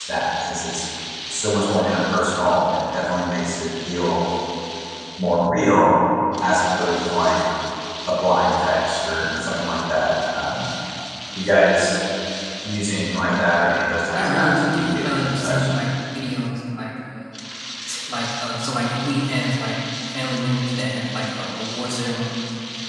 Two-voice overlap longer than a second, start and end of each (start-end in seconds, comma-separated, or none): 14.1-15.6